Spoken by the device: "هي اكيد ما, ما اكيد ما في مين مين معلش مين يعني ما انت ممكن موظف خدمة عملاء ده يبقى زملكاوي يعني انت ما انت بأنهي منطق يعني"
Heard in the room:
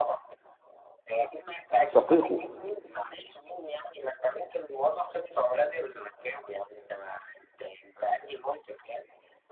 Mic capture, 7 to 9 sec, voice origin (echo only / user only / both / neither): echo only